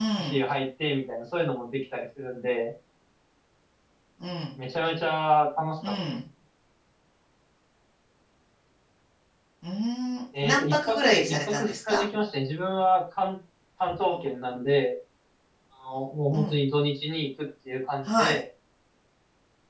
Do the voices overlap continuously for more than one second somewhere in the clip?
Yes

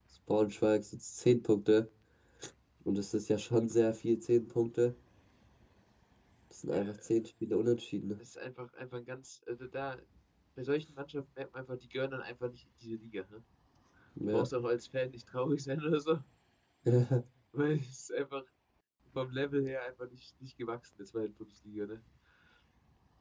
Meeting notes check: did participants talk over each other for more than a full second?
No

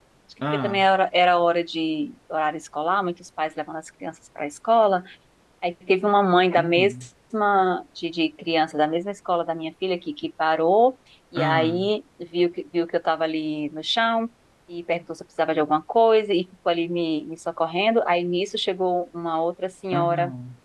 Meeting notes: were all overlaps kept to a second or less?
Yes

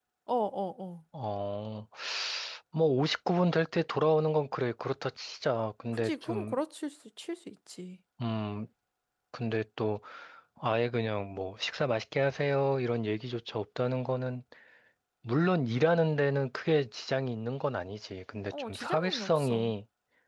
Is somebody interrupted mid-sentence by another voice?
Yes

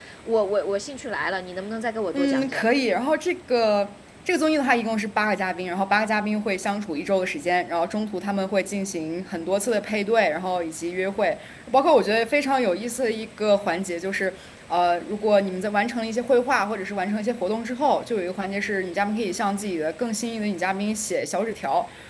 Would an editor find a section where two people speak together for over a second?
No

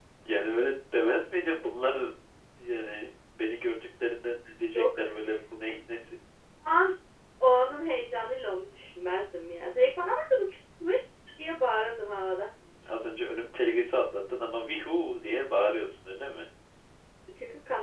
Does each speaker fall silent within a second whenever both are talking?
Yes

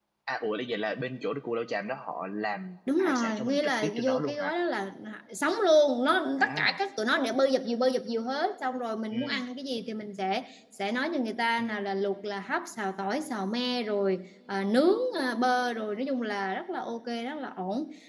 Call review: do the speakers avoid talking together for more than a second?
No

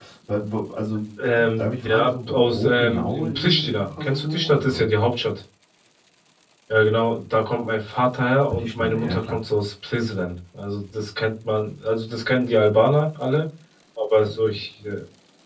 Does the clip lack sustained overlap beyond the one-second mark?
No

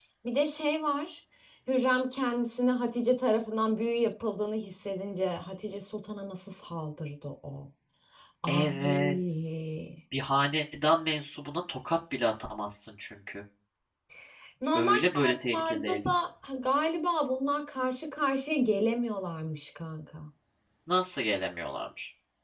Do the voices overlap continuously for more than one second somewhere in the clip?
Yes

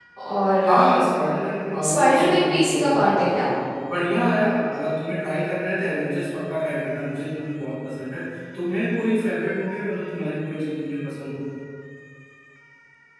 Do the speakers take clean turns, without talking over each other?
No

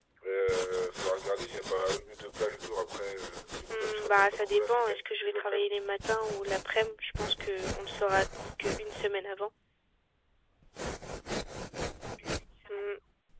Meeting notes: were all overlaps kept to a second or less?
No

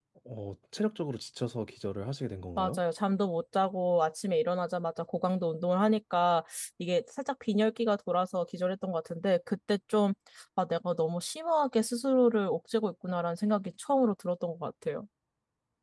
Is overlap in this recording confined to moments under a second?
Yes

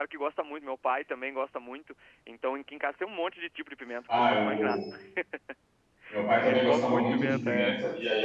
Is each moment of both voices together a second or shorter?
No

